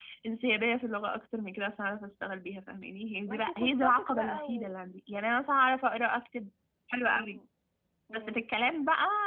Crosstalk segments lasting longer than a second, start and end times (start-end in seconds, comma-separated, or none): 3.3-4.7